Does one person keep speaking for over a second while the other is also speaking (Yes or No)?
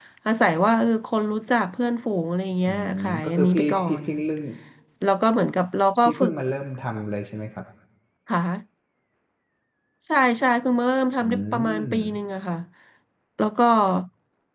Yes